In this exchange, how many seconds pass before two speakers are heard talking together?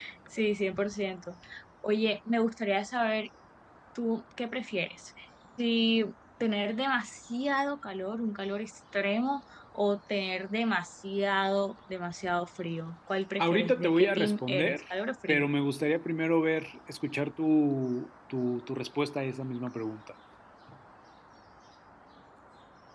13.4 s

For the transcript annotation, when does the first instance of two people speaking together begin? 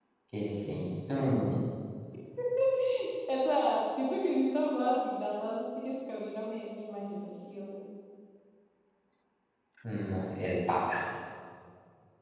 none

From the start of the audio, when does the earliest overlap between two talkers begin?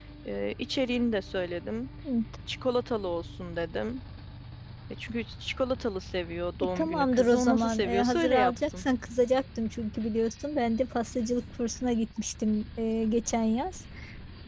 6.8 s

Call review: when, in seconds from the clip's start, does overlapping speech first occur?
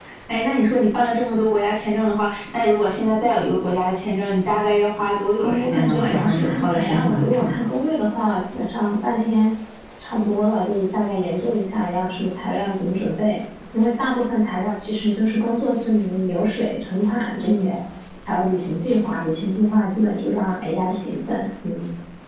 5.4 s

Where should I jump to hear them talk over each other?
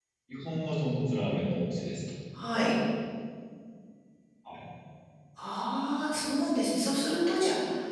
none

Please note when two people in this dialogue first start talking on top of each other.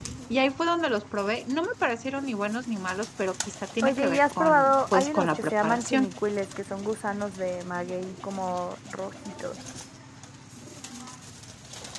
3.8 s

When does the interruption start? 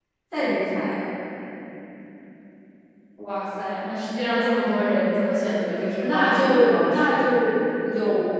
6.0 s

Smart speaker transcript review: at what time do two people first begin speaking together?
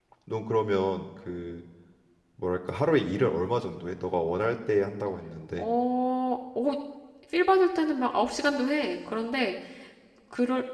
none

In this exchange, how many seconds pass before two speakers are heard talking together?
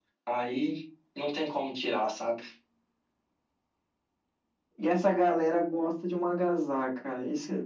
none

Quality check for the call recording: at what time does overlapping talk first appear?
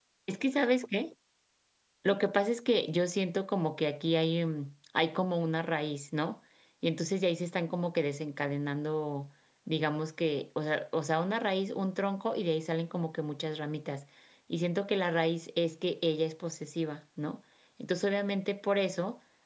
none

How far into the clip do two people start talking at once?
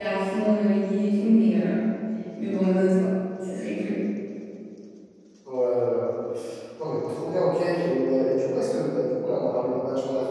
none

